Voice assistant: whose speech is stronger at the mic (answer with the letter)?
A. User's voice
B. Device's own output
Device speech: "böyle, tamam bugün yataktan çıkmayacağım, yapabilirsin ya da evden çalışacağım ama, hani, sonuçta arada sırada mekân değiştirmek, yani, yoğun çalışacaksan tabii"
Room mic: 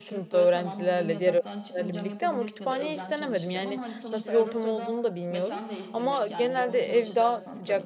A